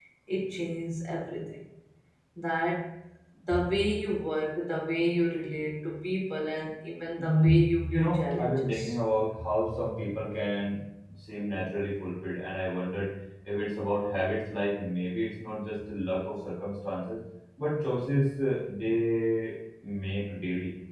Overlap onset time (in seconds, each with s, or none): 7.1 s